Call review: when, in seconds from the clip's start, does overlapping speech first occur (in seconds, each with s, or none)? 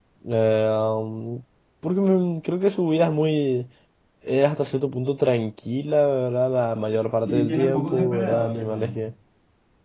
7.2 s